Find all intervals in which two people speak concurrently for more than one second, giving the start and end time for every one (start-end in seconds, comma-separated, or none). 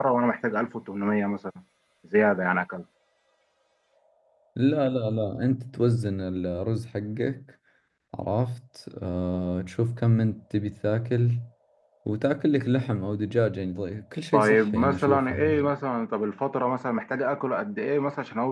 14.3-15.7